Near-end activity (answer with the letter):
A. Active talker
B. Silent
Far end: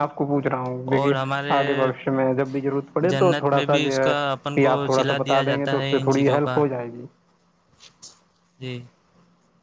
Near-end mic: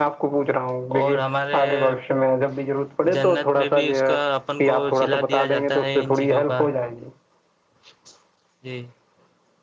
B